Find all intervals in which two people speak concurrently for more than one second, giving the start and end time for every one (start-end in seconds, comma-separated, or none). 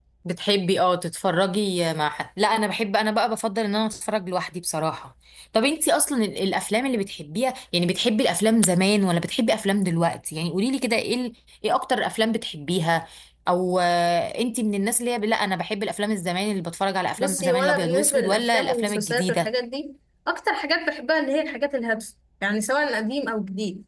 17.2-19.5